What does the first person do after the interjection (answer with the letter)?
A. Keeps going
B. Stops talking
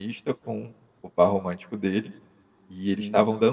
A